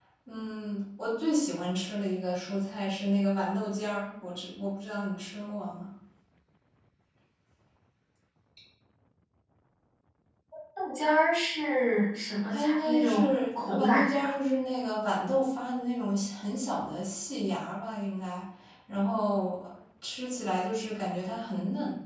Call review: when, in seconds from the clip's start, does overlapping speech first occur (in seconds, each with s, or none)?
12.5 s